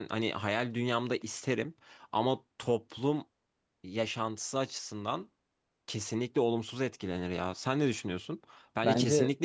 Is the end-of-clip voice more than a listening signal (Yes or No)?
No